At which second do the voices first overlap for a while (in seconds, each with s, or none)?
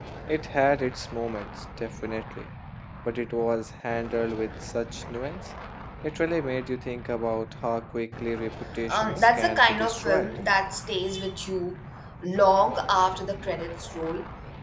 8.9 s